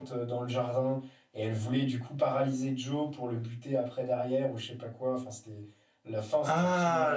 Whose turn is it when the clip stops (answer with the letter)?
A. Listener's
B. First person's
A